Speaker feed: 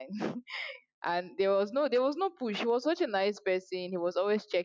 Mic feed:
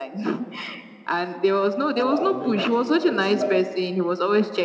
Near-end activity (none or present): present